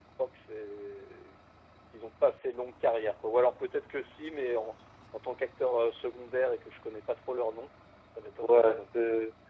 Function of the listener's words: taking over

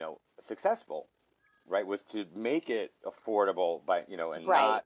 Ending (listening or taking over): listening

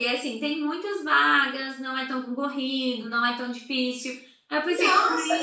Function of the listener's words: taking over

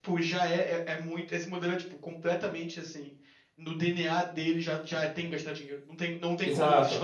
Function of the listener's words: taking over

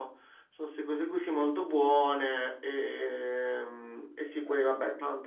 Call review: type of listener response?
listening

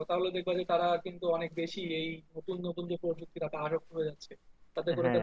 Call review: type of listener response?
listening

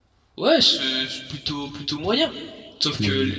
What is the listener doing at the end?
listening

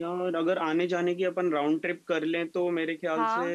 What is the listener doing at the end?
listening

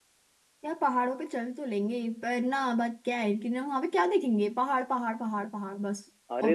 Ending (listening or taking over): taking over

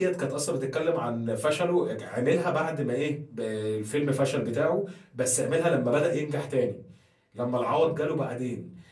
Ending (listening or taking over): listening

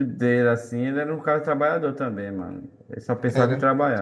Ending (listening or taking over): taking over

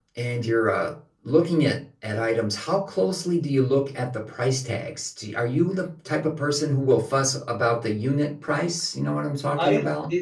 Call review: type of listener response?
taking over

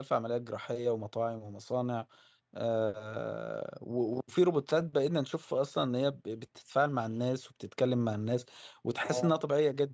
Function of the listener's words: listening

